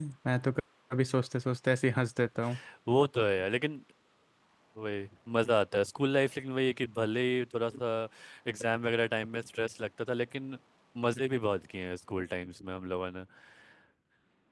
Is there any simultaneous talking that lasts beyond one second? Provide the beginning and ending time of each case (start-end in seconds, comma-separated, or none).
none